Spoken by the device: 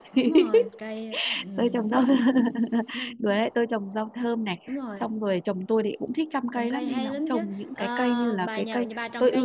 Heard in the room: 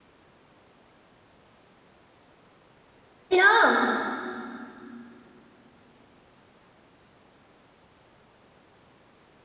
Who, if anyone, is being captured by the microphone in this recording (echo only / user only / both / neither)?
user only